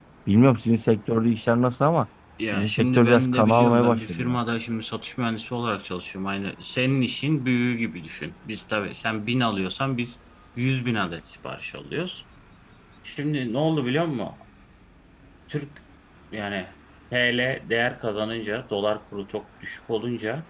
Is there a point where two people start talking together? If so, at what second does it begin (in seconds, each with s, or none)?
2.5 s